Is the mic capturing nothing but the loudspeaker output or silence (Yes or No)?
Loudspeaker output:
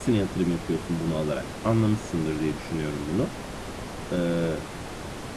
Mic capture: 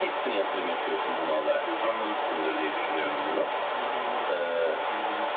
No